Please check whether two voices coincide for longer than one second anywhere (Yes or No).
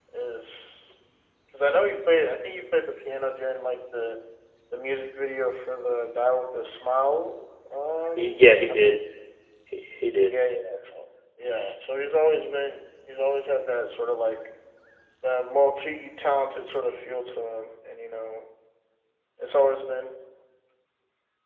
No